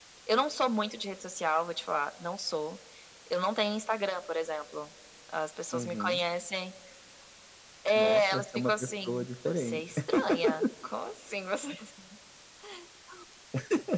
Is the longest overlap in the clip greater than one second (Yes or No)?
Yes